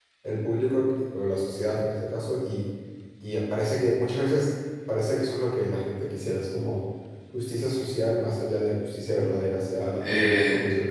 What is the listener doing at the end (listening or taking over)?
taking over